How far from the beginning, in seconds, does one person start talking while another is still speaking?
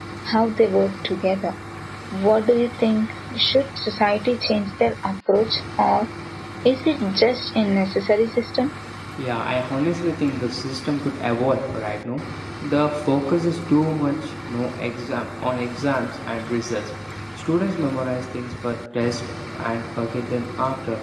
none

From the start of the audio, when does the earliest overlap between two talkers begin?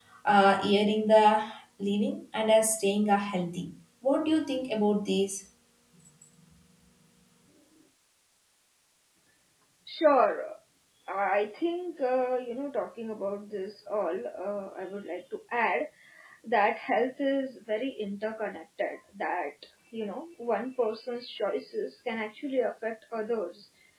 none

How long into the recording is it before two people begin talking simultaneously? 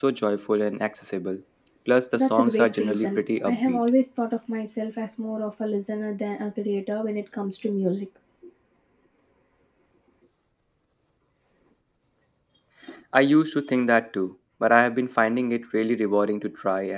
2 s

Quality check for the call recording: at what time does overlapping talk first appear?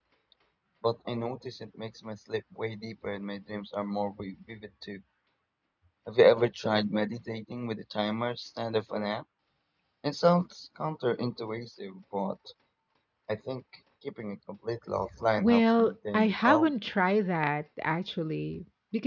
15 s

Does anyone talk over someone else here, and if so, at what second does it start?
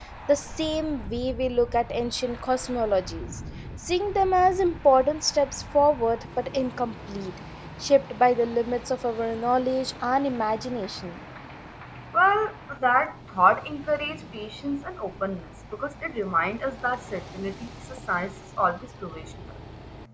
none

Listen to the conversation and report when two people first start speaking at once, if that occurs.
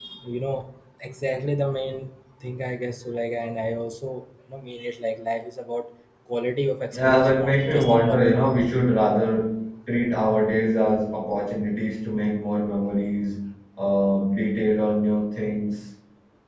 7 s

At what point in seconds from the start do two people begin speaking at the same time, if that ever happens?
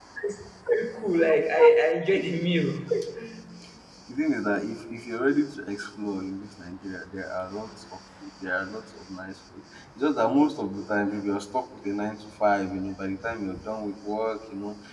none

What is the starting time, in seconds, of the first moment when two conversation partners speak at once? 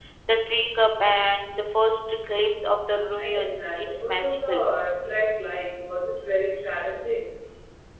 3 s

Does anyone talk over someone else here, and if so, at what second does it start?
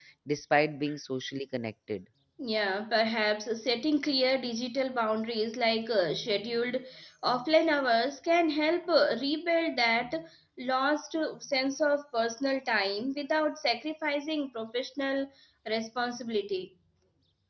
none

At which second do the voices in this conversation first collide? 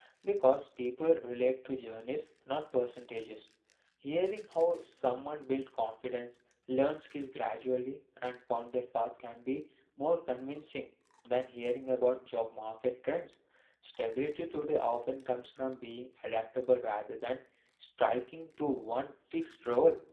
none

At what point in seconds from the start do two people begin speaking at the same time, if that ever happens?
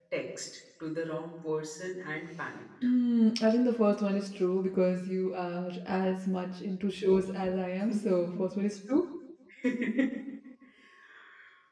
none

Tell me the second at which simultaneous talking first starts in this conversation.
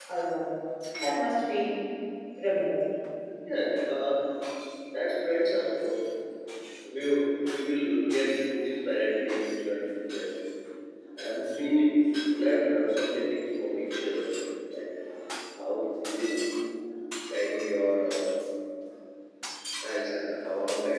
none

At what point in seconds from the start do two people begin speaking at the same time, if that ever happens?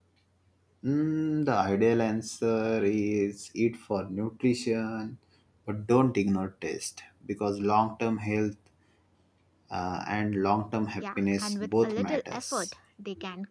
11 s

